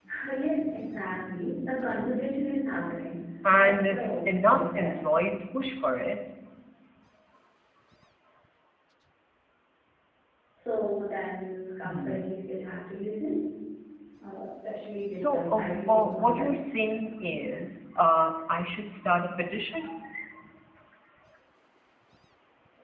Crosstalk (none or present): present